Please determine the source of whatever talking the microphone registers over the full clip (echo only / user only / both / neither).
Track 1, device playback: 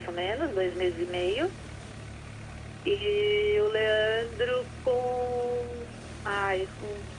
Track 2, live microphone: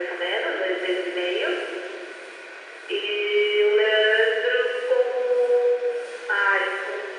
echo only